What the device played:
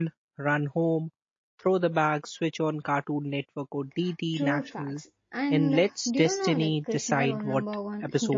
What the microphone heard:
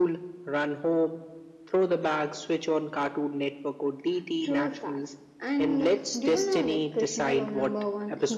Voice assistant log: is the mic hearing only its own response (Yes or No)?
Yes